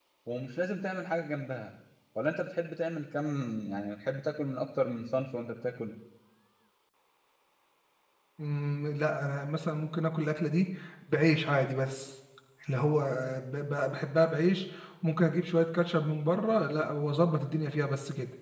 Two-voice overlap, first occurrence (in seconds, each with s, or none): none